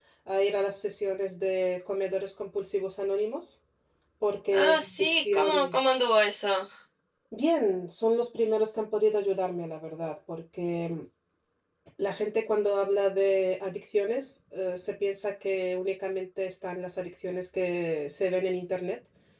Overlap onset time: 4.5 s

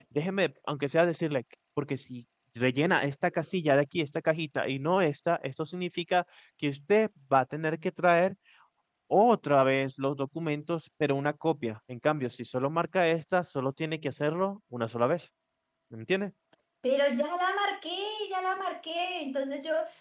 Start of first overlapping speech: none

